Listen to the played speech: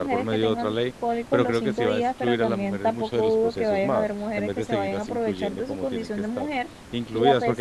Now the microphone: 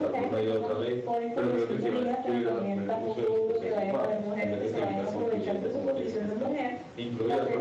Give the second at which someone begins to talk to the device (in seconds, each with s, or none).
none